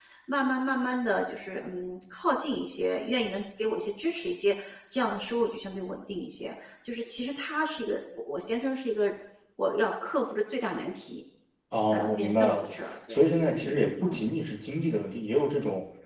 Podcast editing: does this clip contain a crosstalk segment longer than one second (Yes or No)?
Yes